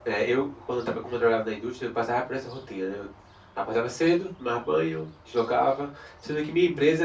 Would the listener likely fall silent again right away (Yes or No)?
Yes